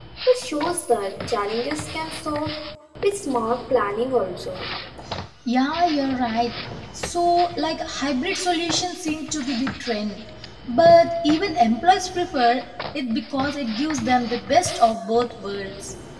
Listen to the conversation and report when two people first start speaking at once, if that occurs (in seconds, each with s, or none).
none